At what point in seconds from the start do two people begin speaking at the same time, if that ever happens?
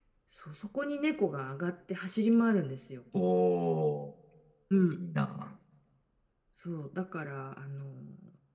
none

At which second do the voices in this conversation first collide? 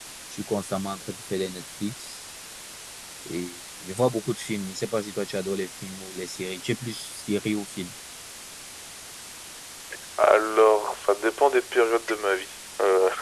none

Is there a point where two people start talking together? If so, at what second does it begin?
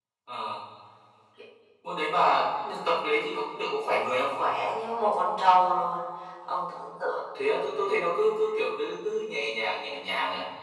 none

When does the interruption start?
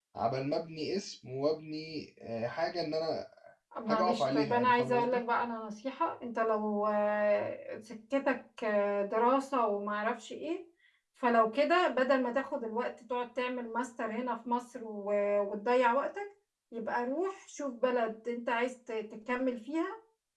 3.9 s

